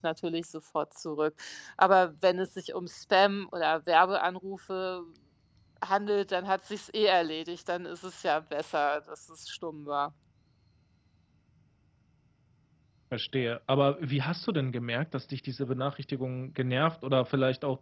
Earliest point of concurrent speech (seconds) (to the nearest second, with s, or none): none